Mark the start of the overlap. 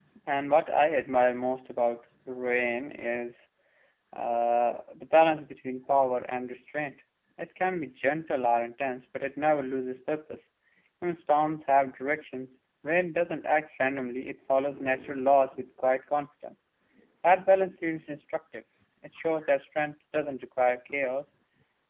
none

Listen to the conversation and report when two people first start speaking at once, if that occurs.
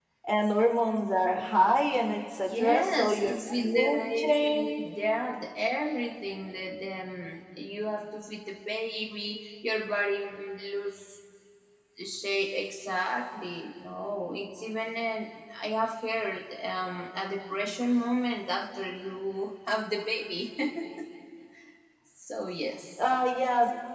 2.4 s

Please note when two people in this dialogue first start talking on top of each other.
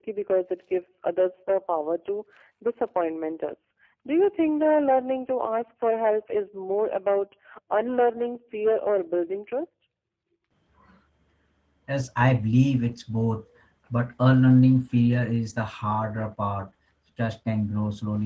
none

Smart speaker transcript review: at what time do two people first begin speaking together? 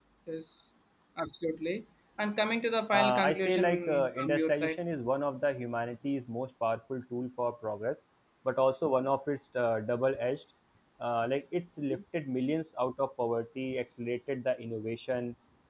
2.9 s

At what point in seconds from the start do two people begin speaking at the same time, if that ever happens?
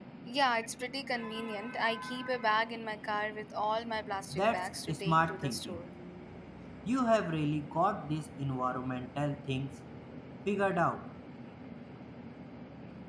4.3 s

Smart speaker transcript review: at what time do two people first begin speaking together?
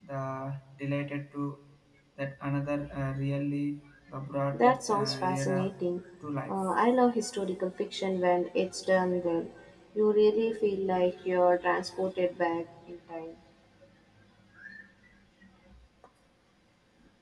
4.5 s

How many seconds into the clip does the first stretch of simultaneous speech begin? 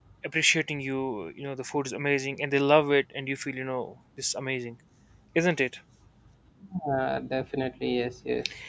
none

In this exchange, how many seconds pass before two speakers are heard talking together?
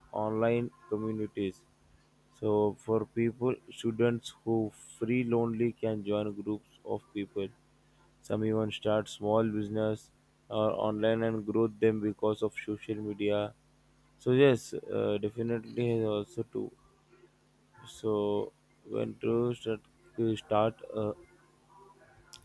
none

